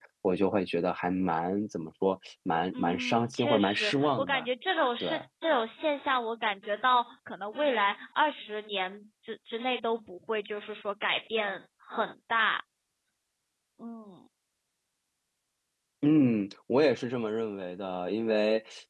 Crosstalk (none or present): present